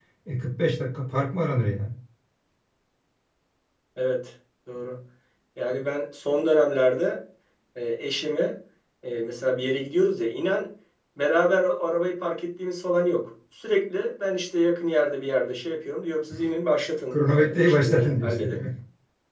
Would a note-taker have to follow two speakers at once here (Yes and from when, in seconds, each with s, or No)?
Yes, from 17.1 s